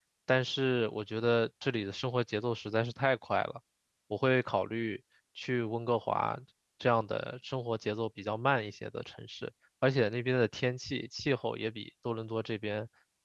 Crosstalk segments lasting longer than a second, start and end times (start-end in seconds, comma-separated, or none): none